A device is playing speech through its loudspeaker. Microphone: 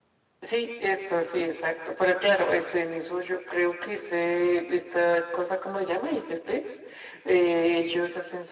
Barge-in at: none

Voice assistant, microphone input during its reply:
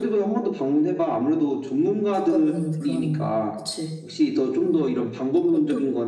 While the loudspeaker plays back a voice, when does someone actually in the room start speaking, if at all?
none

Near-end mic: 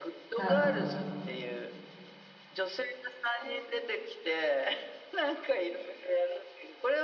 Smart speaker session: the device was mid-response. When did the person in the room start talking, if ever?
0 s

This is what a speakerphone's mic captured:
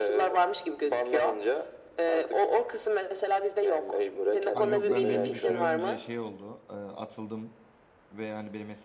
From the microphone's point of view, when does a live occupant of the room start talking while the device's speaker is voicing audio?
5 s

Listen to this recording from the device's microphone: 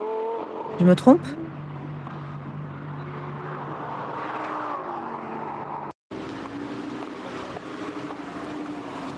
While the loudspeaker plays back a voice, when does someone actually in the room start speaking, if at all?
1 s

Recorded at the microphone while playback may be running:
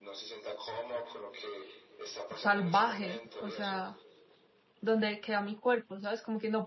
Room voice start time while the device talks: 2 s

